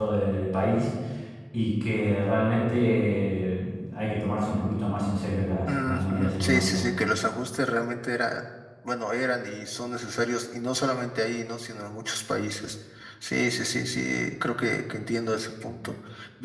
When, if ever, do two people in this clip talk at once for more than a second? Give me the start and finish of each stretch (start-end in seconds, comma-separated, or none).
5.7-6.9